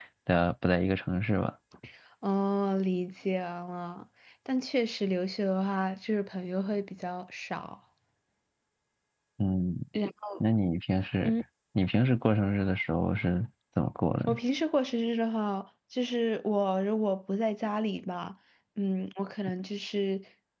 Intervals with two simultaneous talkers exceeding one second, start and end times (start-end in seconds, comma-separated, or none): none